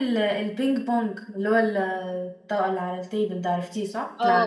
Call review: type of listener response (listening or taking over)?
taking over